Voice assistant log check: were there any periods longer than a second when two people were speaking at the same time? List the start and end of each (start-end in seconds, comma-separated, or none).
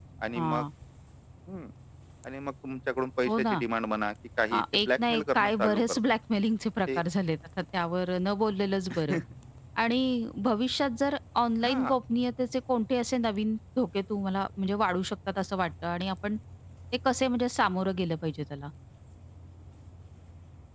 4.5-6.0